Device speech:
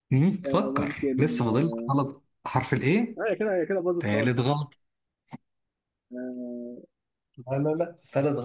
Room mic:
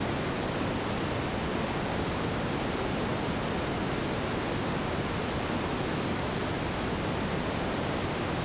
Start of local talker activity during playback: none

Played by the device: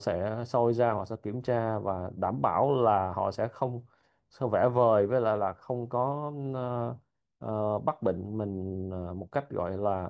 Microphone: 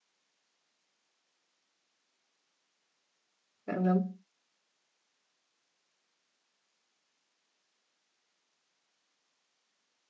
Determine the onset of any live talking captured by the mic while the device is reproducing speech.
3.6 s

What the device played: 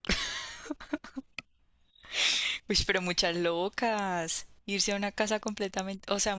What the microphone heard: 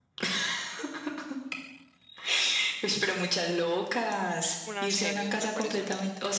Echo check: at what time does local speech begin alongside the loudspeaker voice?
4.6 s

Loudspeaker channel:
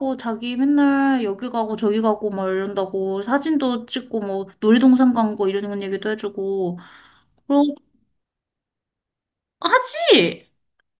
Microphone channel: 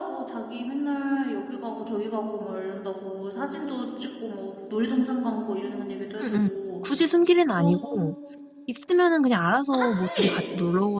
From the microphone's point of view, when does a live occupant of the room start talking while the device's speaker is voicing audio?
6.2 s

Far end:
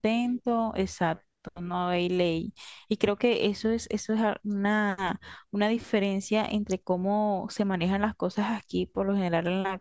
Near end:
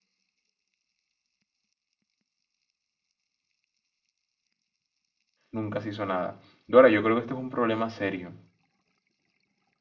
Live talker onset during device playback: 5.5 s

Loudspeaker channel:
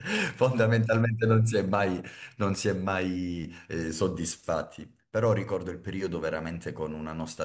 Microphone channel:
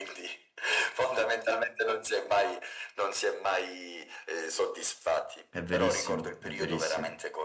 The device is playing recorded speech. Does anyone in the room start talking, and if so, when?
5.5 s

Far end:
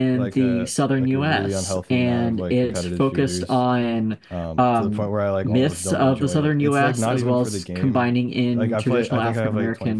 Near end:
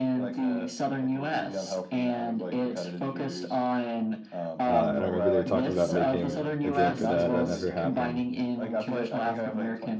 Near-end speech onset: 4.7 s

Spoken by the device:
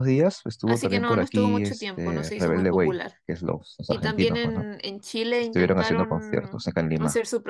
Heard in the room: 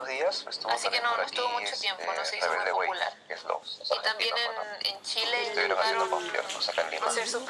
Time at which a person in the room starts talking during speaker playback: 5.3 s

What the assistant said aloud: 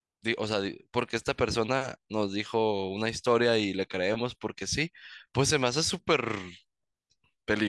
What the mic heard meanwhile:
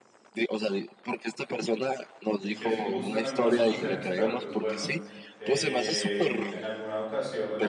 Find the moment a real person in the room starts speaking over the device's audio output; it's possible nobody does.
2.4 s

